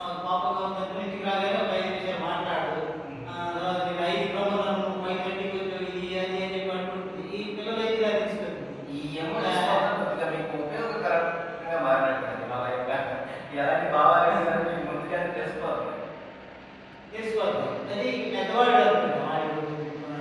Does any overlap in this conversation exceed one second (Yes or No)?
No